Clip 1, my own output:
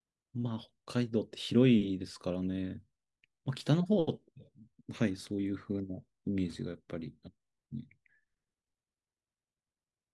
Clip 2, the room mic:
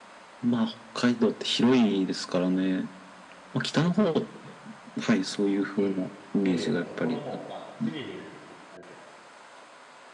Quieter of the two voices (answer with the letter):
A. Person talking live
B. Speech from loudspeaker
A